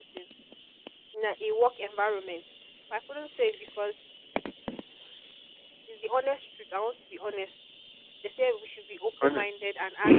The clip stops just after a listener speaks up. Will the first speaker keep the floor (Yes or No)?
Yes